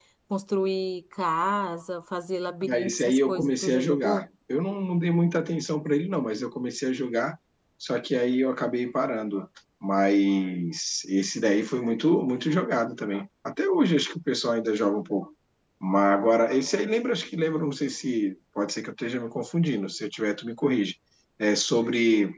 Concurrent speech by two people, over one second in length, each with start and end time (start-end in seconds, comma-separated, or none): 2.6-4.2